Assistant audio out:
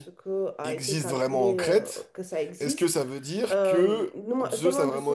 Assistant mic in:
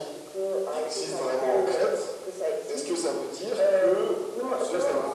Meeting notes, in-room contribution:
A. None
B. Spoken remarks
A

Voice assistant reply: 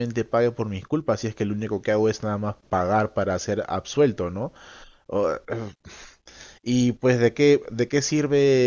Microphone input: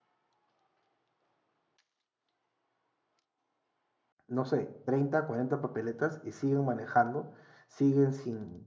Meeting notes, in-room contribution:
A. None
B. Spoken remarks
B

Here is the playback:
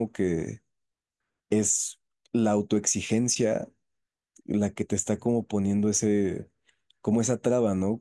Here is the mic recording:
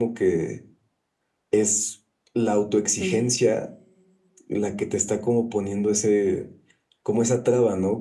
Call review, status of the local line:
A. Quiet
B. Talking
B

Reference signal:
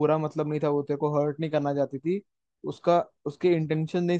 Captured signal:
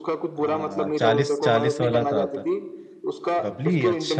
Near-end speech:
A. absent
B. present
B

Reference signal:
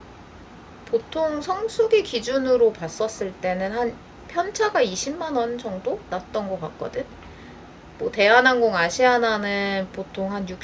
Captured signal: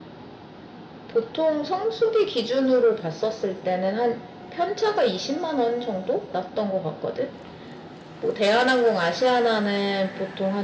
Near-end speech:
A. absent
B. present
A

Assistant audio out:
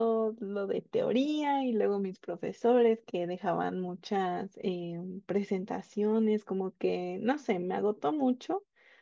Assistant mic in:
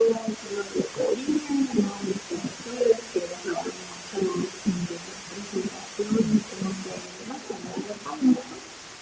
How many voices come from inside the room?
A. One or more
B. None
B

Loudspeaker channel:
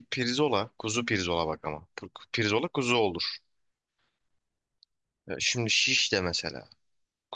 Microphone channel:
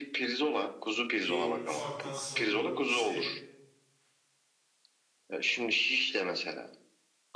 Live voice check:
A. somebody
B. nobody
A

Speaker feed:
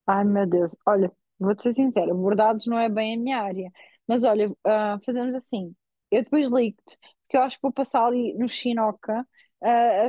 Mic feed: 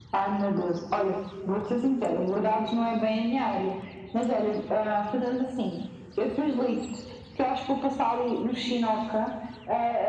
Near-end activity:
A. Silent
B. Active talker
A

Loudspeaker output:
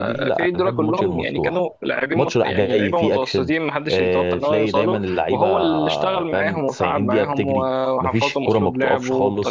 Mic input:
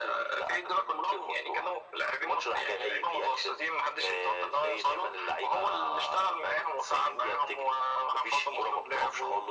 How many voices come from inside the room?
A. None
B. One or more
A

